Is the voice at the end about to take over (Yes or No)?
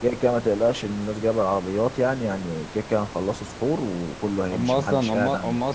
Yes